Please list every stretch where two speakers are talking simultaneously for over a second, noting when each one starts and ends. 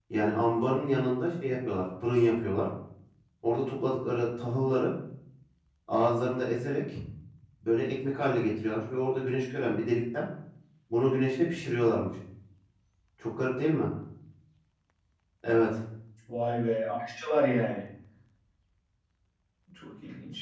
none

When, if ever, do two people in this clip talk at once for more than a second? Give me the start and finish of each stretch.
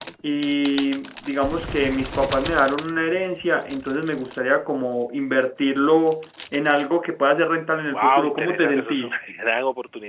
7.9-9.2

